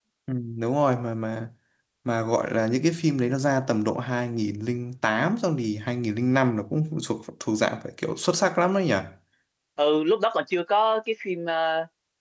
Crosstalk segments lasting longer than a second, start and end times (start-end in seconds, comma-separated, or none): none